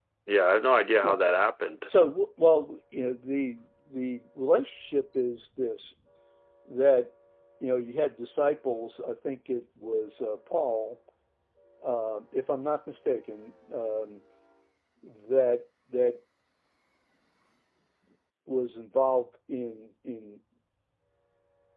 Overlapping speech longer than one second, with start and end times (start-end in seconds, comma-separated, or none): none